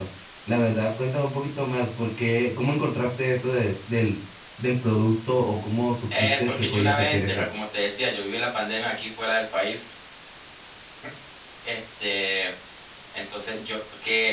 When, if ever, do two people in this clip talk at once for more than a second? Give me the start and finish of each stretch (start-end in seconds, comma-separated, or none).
6.2-7.4